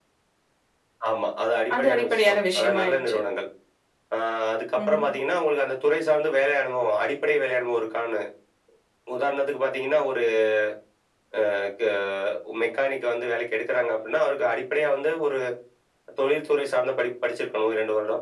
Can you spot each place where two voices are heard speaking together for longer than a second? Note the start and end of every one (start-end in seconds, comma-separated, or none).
1.7-3.2